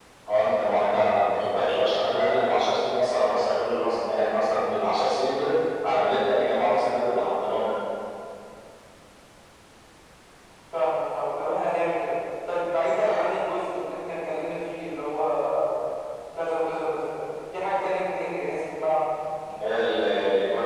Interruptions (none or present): none